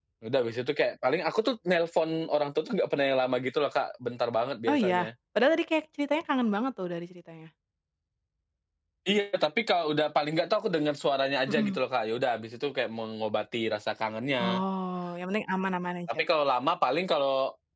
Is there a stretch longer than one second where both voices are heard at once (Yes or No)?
No